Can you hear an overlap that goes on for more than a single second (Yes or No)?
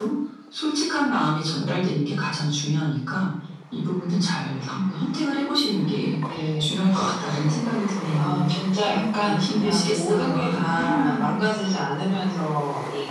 Yes